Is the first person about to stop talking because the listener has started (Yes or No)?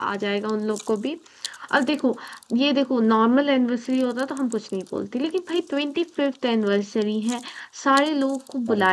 No